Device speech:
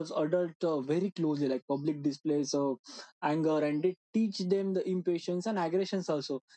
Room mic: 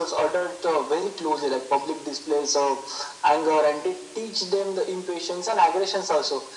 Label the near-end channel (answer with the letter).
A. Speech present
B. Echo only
B